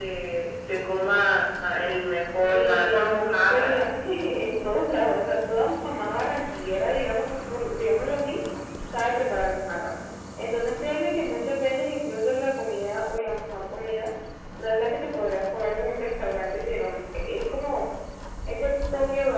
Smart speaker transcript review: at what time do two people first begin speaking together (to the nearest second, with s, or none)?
2 s